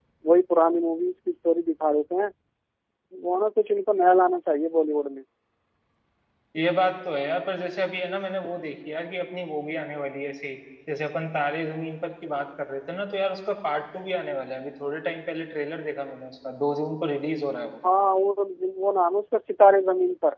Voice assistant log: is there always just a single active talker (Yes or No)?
Yes